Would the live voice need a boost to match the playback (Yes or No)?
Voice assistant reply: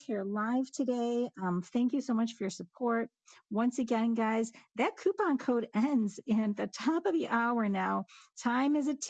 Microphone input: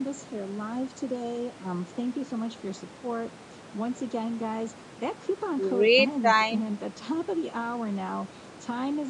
No